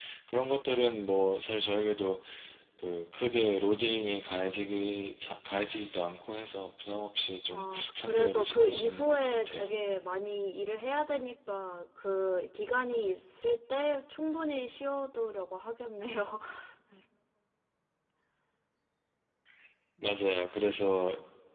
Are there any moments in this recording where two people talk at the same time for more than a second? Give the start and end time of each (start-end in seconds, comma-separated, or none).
7.5-9.7